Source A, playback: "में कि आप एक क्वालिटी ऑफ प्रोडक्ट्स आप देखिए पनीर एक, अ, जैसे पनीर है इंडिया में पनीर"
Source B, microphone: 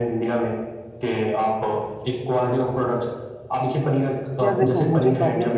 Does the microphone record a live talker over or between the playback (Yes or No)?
Yes